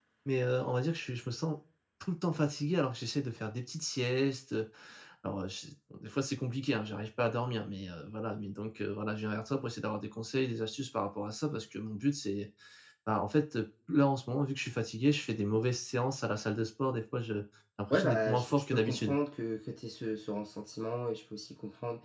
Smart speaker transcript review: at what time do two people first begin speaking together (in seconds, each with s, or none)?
17.9 s